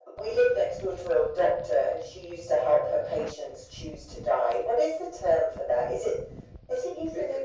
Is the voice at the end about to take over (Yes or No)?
Yes